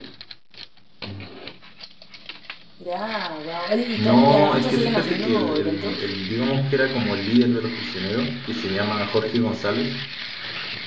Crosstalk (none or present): present